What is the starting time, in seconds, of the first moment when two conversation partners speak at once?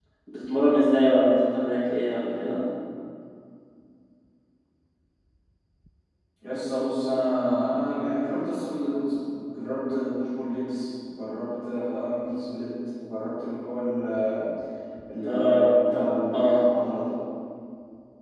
15.2 s

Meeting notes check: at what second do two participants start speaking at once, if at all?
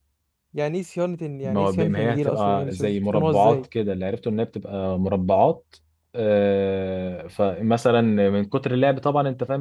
1.4 s

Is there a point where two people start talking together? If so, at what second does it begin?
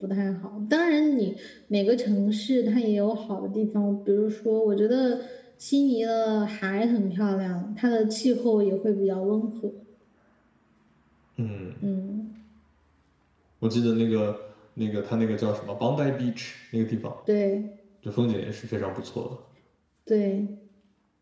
none

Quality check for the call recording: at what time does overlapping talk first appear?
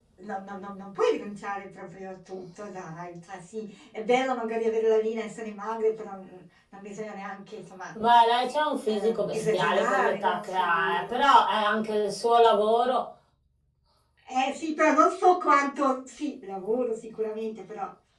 8.9 s

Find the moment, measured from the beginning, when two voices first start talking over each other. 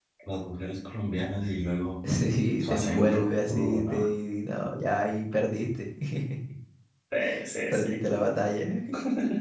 2.6 s

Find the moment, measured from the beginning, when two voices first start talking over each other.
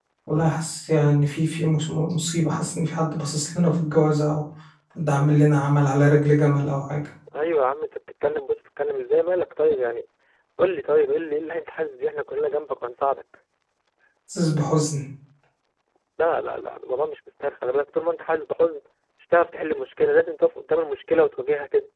none

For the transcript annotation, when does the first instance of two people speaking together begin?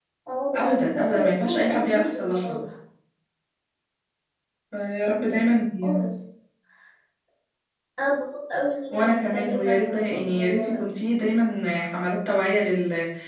0.5 s

